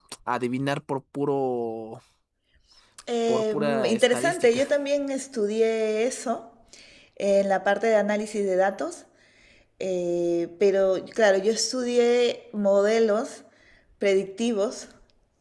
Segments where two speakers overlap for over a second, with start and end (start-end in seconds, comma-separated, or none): 3.3-4.6